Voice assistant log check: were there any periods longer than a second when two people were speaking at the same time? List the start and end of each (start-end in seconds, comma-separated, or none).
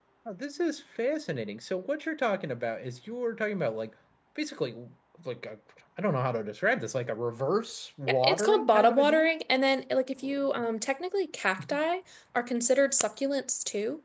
8.1-9.3